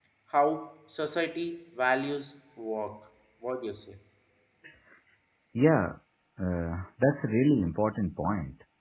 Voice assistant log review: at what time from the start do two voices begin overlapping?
none

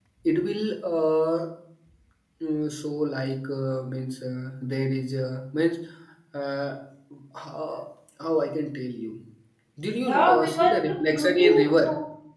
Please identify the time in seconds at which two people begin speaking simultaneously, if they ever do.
10 s

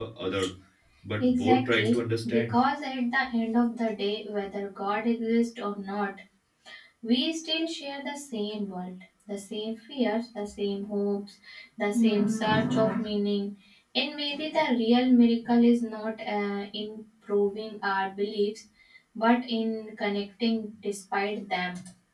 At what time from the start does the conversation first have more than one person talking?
1 s

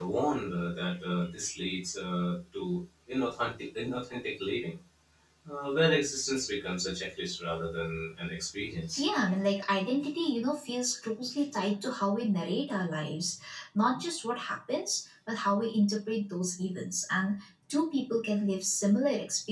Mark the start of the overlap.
none

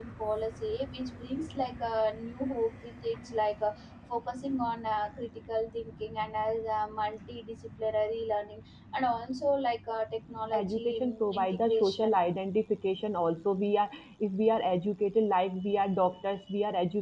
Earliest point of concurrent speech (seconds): 11 s

